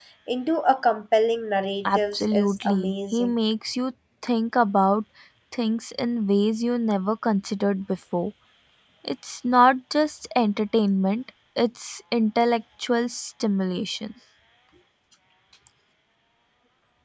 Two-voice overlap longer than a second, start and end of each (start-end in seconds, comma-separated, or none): 1.8-3.3